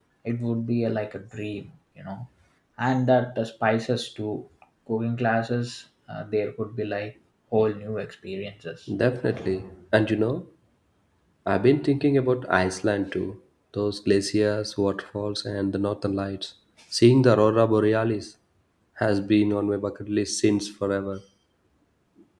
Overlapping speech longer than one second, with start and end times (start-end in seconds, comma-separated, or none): none